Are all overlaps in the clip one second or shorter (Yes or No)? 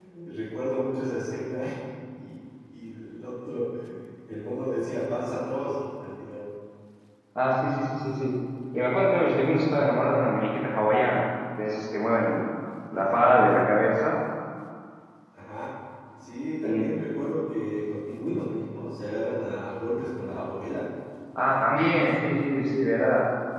Yes